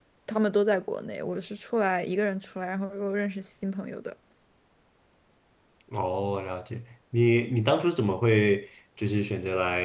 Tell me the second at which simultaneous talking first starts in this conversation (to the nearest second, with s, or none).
none